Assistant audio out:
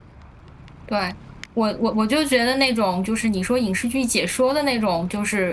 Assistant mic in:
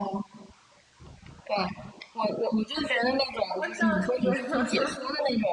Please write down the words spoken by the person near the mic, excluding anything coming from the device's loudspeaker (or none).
我笑死了，